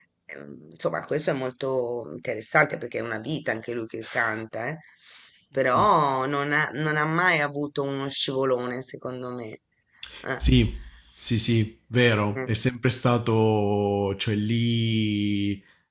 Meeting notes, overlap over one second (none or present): none